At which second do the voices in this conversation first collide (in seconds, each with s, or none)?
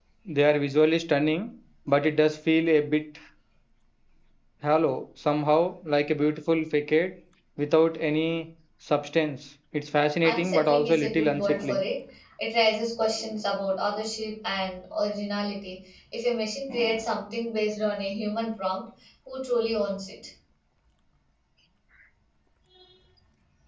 10.2 s